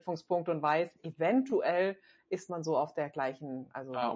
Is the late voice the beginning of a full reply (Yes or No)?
Yes